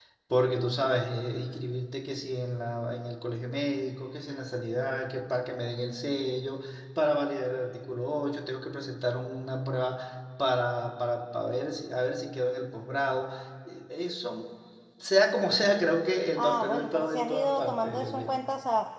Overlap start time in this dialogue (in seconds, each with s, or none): 16.4 s